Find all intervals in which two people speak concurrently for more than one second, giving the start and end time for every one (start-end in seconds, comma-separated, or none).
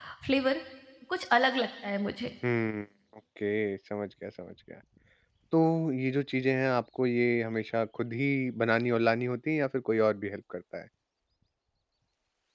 none